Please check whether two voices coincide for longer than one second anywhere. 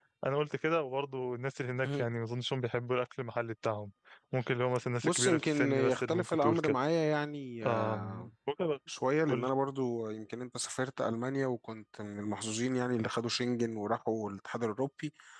Yes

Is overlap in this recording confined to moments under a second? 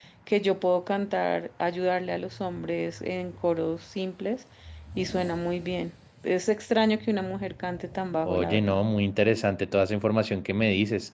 Yes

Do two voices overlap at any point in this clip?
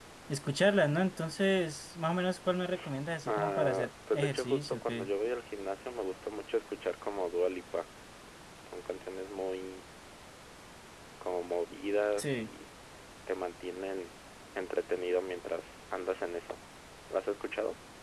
Yes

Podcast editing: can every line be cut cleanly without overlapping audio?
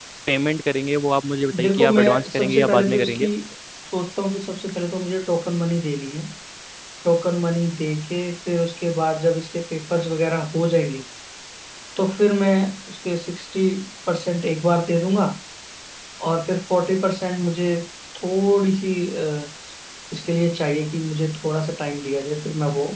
No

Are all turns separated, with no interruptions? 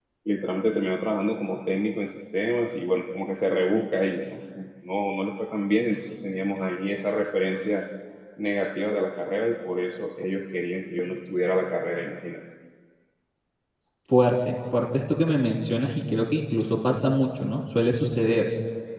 Yes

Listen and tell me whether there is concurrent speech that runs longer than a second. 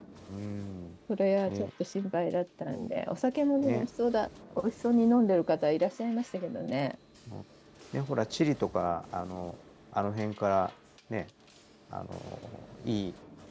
No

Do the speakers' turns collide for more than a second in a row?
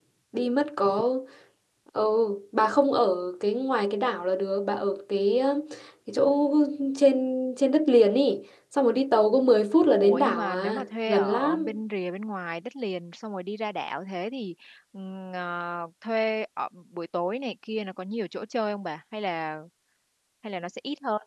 Yes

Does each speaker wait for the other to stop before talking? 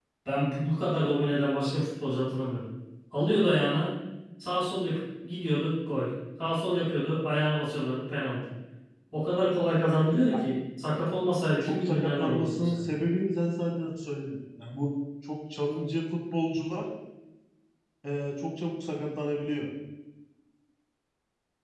No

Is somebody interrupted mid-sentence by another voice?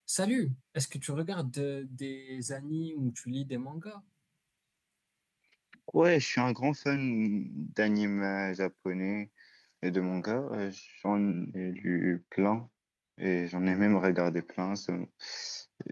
No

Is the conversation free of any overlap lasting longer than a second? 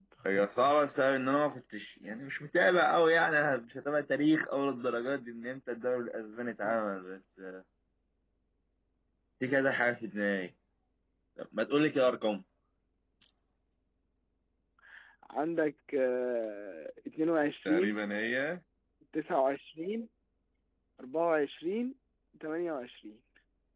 Yes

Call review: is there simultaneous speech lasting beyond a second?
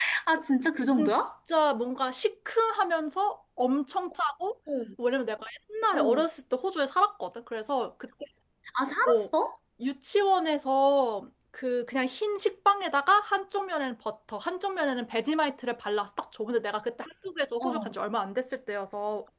No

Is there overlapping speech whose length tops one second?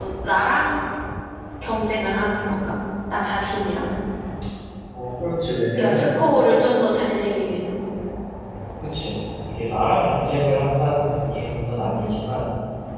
No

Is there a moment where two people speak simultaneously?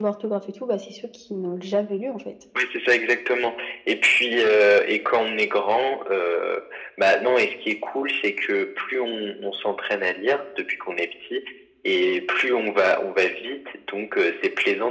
No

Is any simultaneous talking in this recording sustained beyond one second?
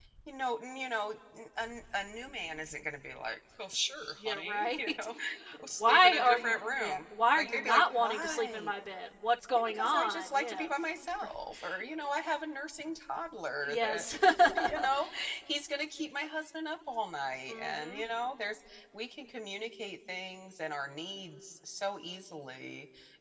Yes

